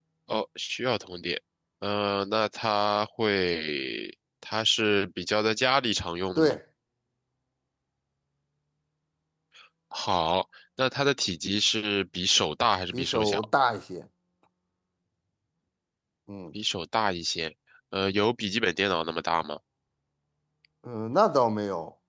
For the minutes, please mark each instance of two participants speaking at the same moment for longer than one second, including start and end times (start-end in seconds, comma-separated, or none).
none